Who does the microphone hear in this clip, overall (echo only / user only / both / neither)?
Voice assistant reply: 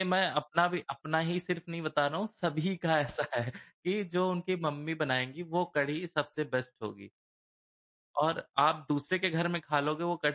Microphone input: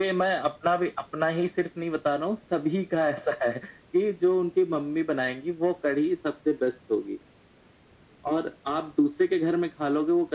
echo only